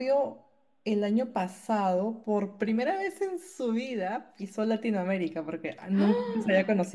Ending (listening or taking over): listening